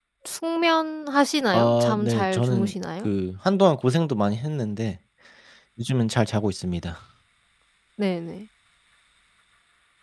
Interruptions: present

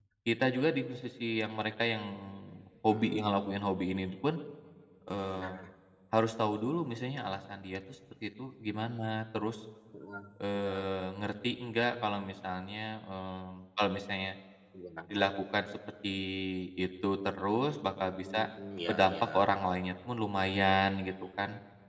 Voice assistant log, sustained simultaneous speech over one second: none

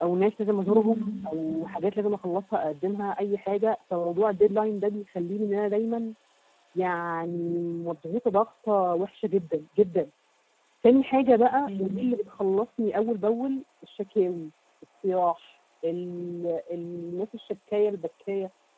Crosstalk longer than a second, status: none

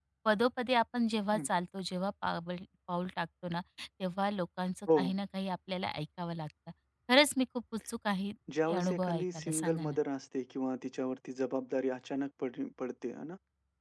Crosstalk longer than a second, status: present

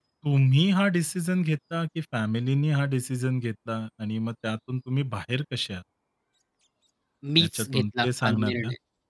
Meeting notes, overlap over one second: present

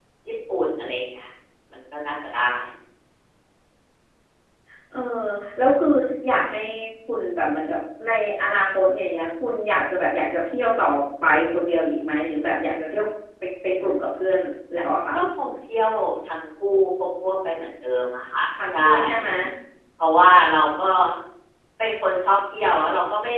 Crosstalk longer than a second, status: none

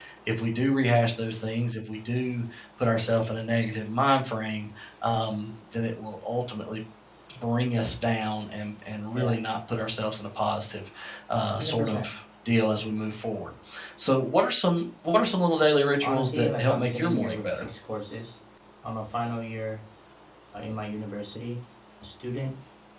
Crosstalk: present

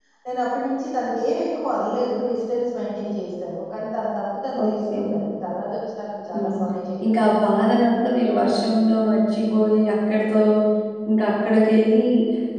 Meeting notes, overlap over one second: none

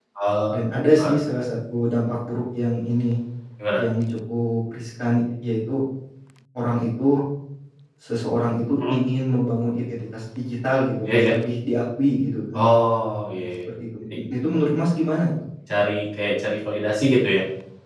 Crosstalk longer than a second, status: none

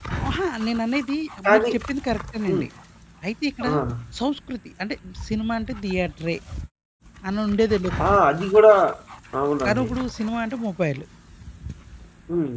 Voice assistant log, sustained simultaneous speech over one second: none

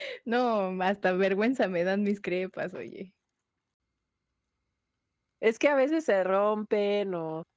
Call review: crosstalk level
none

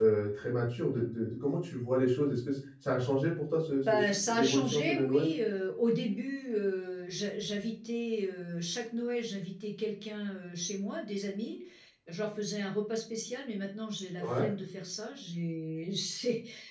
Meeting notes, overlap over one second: present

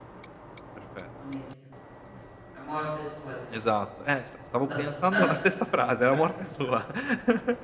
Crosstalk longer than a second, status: none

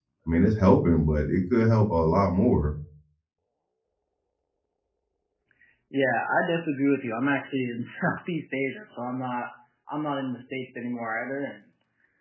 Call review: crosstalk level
none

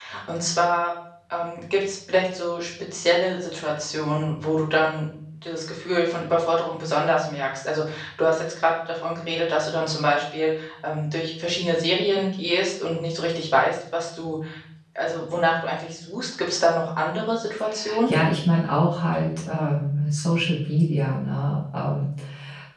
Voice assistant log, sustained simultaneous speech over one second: none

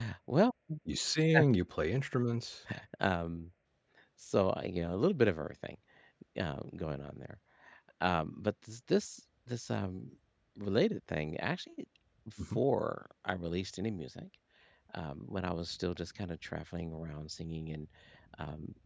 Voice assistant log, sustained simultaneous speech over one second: none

